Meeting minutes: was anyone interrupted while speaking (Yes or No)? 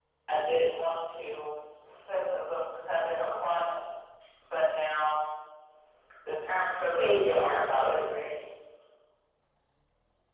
Yes